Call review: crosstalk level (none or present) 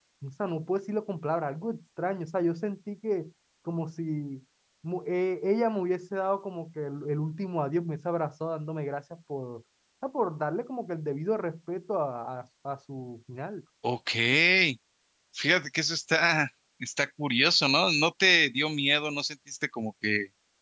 none